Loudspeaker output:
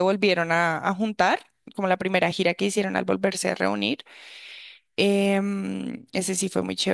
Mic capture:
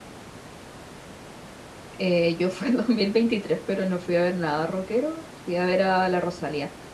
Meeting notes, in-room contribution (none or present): present